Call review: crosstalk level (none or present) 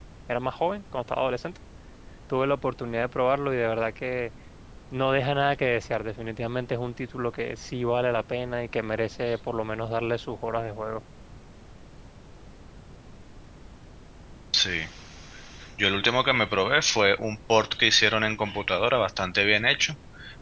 none